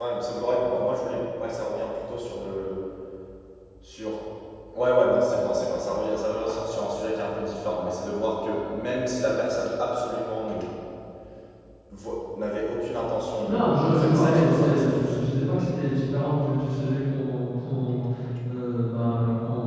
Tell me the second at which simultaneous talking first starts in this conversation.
13 s

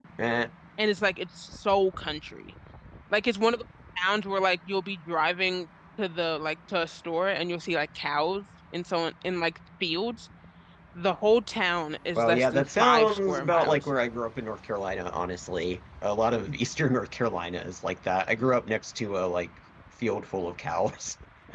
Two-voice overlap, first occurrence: 12 s

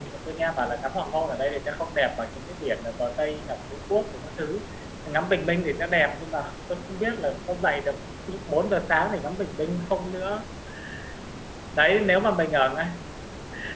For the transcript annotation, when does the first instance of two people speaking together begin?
none

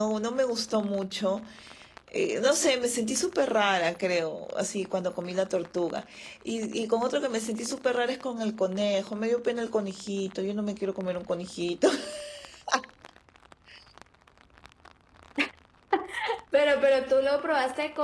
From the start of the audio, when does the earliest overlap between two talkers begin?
none

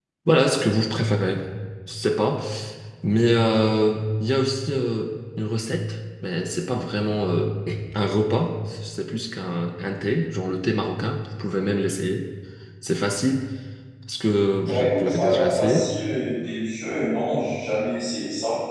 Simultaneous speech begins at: 15 s

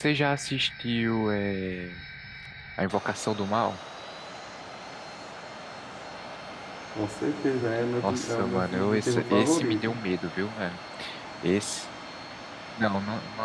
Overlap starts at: 8 s

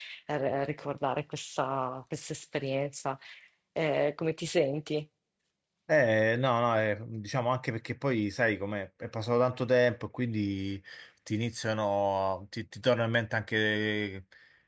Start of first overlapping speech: none

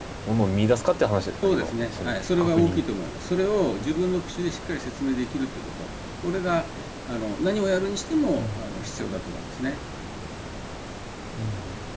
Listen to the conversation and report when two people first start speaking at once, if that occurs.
1 s

